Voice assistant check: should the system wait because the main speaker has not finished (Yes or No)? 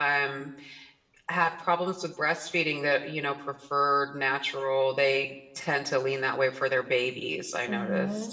No